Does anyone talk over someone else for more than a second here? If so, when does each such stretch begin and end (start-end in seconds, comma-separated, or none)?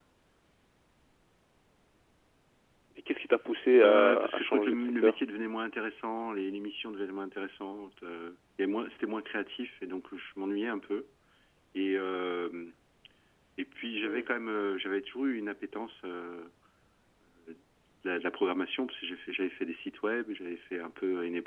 3.8-5.1